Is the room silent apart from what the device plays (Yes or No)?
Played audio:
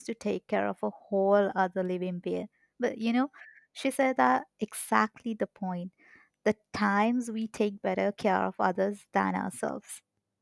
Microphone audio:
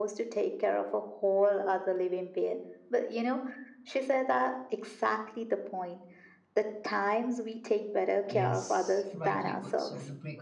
No